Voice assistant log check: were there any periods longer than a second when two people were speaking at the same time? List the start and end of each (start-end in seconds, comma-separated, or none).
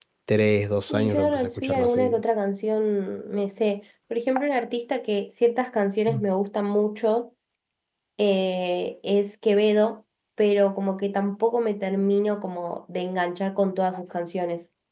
0.9-2.2